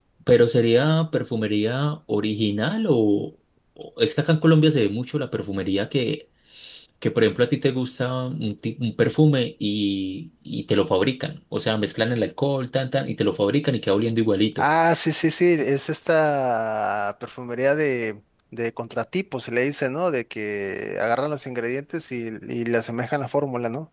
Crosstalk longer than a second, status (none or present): none